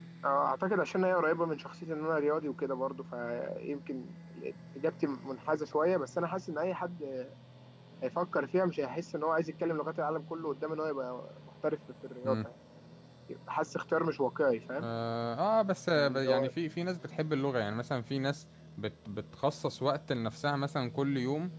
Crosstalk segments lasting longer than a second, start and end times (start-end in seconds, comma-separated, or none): none